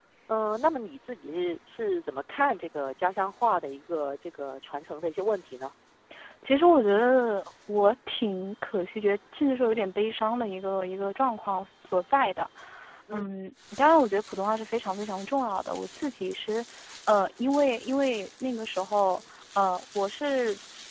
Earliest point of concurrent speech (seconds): none

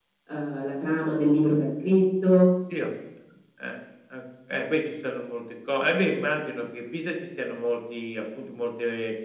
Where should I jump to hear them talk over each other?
none

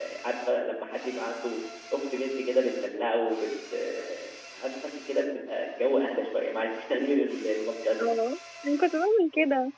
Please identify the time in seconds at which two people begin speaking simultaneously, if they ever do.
none

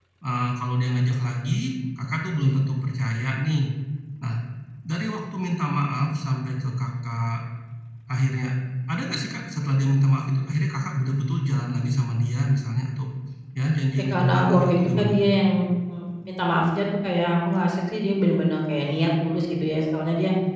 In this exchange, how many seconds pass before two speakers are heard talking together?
14 s

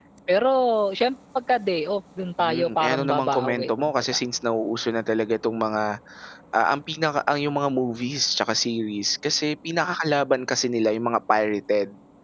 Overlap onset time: 2 s

